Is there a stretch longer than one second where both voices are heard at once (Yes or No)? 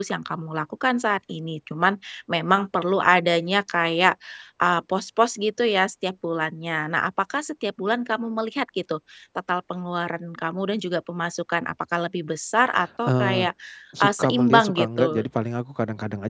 Yes